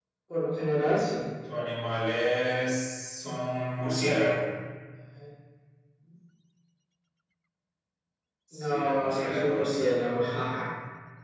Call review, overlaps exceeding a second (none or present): present